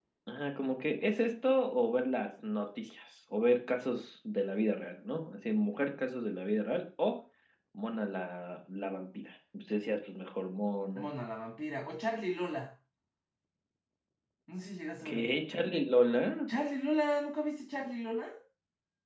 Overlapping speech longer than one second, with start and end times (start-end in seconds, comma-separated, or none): none